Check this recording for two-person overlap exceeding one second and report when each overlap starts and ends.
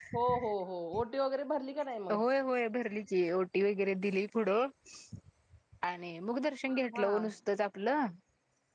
none

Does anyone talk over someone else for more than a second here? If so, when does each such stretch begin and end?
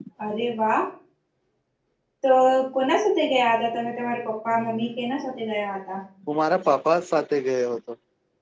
none

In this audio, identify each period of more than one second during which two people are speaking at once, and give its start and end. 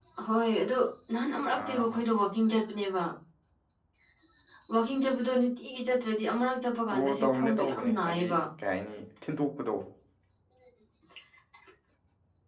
7.0-8.4

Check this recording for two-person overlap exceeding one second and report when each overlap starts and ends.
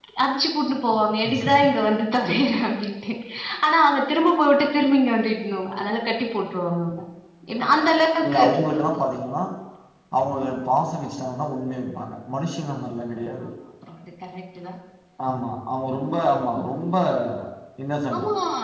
none

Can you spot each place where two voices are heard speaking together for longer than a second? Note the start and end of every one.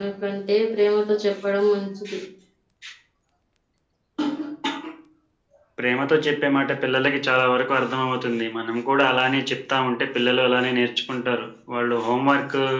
none

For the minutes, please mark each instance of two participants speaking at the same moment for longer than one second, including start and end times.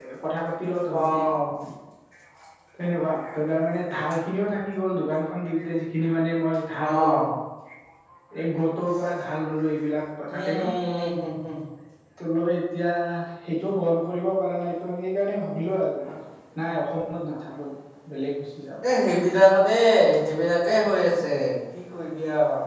none

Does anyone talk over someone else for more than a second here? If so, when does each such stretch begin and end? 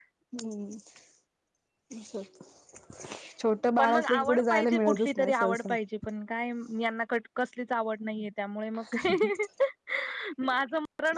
3.8-5.7

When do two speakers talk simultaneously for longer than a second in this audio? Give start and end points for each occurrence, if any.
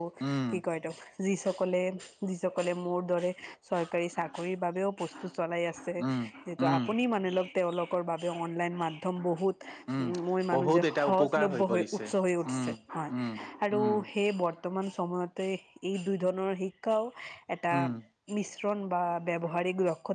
10.5-12.0

